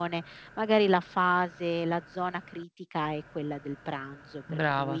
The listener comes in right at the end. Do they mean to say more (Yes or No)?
No